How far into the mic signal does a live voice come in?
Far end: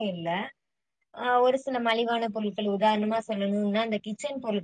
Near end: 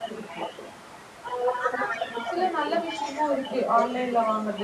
1.6 s

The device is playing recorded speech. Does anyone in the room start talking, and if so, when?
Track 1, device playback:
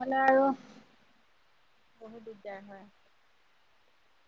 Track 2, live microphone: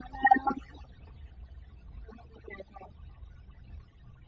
none

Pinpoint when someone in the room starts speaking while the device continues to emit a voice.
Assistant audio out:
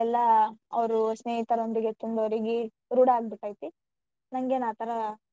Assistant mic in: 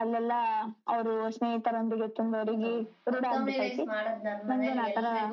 2.5 s

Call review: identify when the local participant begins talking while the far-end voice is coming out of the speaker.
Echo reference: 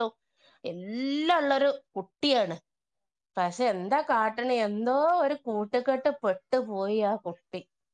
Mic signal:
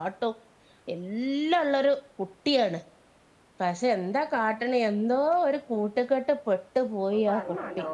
7.0 s

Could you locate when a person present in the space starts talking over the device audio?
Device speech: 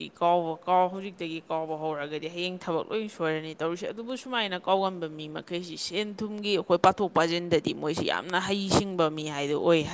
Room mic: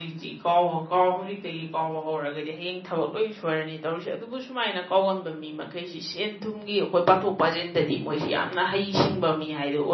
none

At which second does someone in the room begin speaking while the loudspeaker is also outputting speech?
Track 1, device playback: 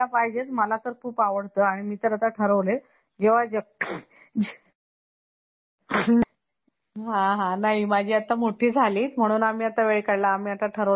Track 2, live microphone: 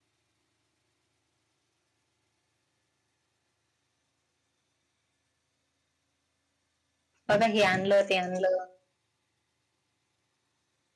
7.3 s

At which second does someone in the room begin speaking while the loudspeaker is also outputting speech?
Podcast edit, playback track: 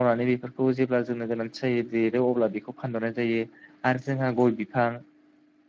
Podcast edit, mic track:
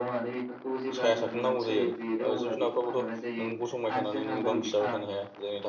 0.9 s

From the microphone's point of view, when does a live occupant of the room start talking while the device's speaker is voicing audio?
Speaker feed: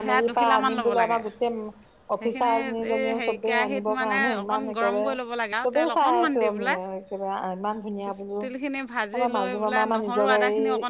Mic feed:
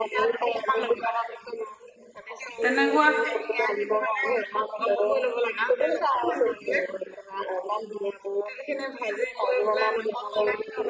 2.6 s

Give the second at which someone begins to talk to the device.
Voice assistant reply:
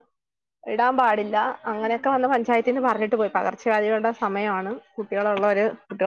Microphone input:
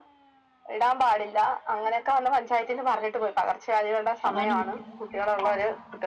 4.3 s

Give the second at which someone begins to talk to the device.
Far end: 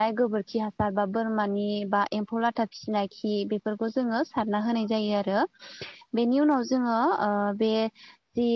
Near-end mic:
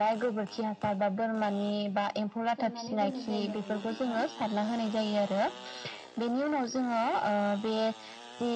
2.6 s

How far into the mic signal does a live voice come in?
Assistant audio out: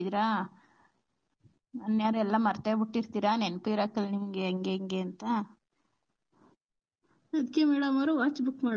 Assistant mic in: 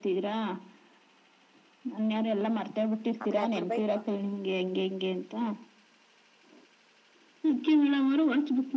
3.2 s

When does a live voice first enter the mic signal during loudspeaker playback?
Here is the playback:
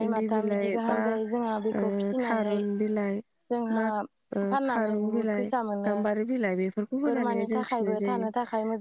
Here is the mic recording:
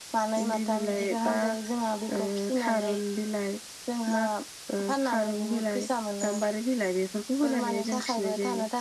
none

